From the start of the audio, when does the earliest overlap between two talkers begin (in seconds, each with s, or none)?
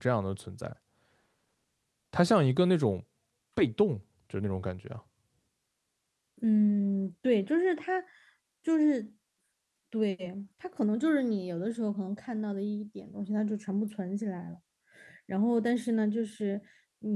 none